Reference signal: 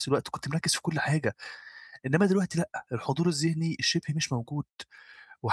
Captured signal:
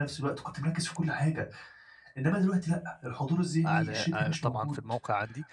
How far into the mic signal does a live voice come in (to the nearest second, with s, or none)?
4 s